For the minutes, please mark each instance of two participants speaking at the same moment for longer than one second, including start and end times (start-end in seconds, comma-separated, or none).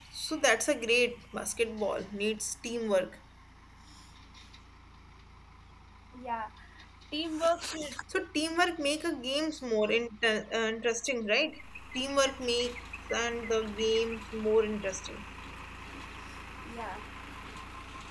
none